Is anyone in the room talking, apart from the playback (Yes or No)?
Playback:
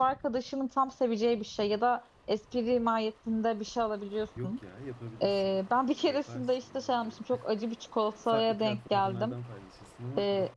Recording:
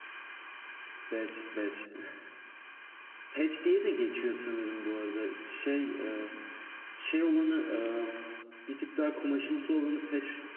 Yes